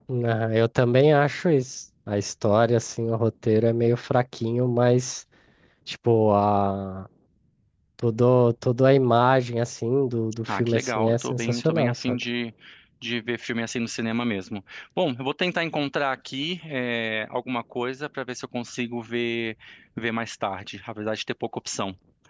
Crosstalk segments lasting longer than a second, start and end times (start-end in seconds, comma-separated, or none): 10.5-12.2